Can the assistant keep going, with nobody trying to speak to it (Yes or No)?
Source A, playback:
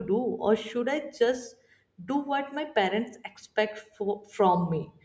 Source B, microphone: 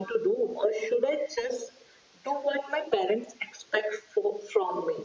Yes